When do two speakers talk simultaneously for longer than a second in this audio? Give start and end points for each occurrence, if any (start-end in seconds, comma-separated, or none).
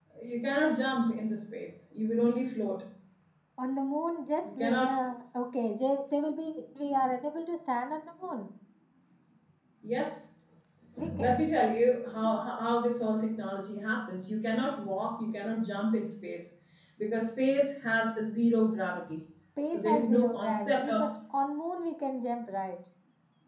19.7-21.1